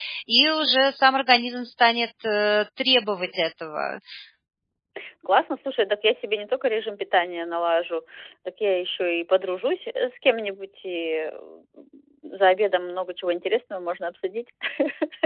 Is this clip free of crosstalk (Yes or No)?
Yes